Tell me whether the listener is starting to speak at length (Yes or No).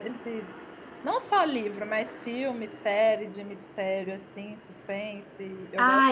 Yes